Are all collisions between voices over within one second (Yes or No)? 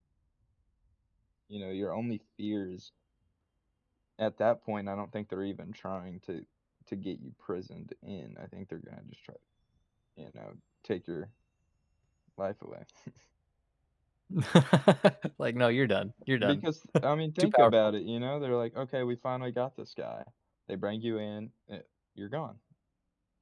Yes